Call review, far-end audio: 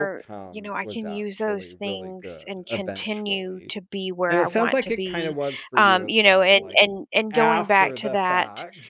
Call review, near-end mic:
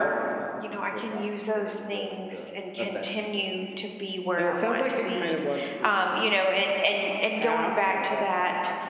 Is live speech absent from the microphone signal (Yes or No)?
Yes